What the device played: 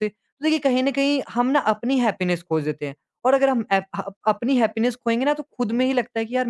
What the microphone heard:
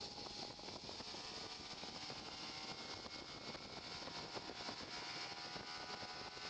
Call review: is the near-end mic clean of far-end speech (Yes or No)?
Yes